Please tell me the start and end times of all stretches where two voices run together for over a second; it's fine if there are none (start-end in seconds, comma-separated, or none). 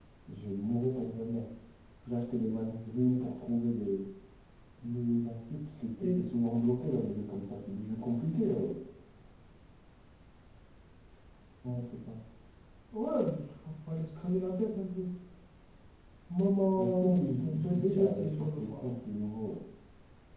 16.8-18.8